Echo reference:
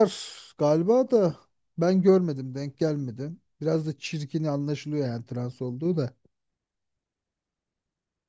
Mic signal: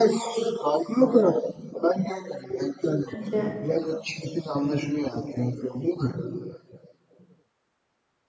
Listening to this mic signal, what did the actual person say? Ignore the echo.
Bence

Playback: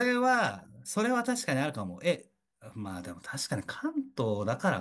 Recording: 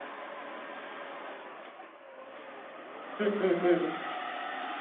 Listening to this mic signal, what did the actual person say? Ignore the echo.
うんうんうん、

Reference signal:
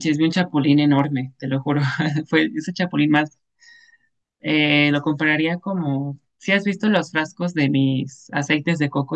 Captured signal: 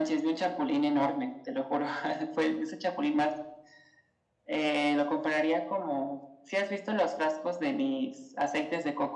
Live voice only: none

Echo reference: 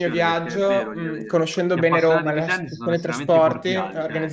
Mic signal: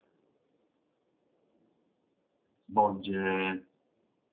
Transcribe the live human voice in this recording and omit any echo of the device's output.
svolge

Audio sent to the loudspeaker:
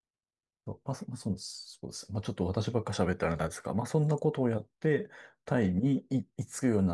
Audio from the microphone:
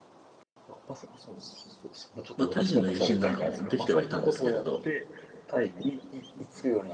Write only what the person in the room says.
まあ、タイ人の友人なんかもできてはいたんですけれど、

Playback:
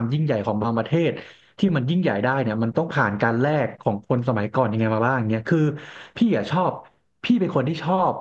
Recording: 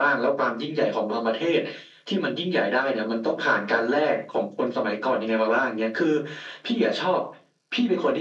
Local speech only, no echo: none

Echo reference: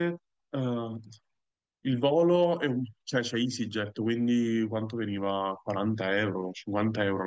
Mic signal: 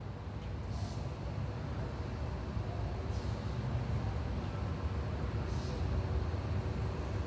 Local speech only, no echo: none

